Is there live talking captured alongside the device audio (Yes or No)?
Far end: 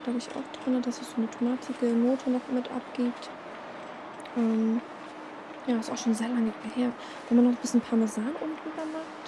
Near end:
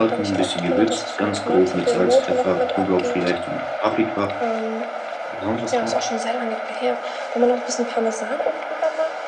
Yes